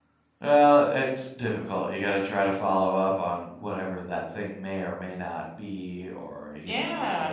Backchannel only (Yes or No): No